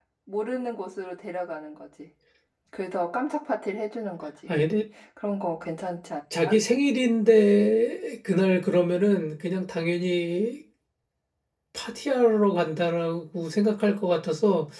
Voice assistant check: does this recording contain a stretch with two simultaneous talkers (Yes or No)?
No